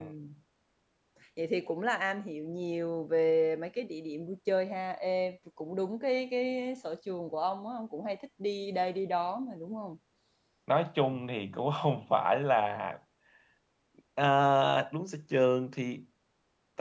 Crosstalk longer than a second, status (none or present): none